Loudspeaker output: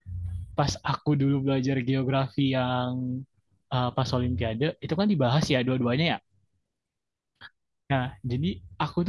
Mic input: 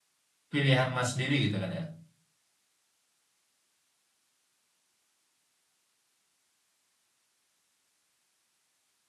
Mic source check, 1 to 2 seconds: user only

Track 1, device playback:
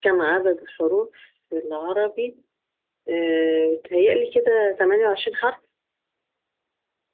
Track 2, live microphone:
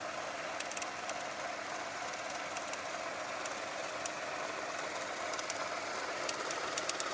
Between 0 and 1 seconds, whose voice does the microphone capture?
neither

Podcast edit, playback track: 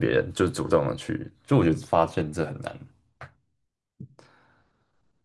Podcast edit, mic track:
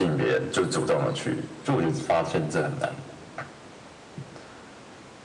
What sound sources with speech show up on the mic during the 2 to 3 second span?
echo only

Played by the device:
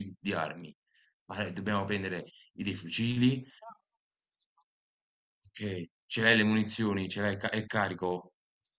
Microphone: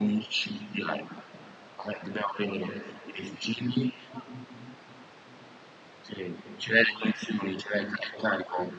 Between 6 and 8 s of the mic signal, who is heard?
echo only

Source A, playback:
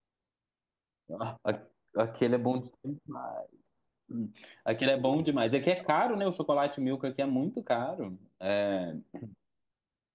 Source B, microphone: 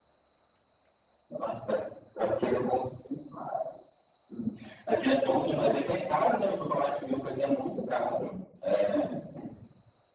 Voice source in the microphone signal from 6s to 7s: both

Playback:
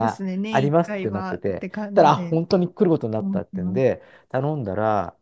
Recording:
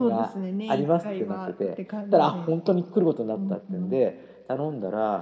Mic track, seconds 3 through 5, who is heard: echo only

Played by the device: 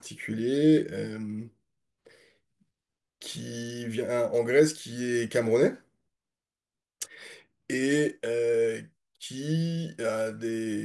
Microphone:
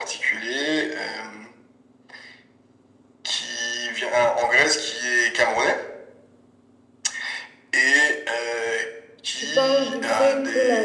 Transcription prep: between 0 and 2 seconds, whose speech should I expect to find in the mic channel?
echo only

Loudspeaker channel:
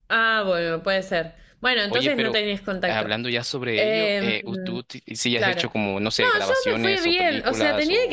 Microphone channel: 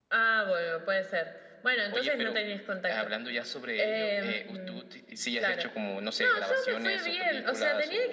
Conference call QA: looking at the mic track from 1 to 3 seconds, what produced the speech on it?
echo only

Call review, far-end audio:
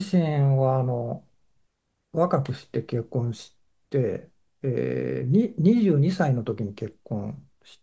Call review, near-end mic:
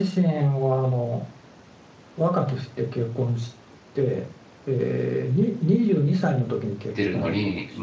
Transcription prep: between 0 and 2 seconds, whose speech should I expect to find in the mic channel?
echo only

